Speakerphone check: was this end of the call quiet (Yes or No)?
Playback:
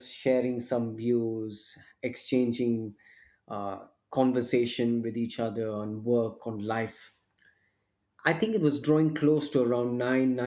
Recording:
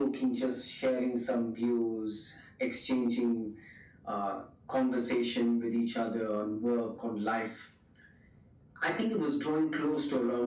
Yes